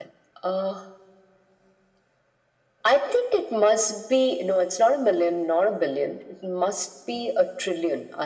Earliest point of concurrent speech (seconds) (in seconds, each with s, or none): none